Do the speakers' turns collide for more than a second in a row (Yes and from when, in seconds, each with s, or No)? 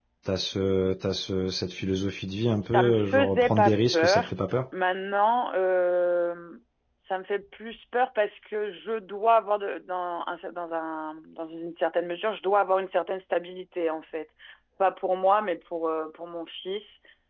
Yes, from 2.6 s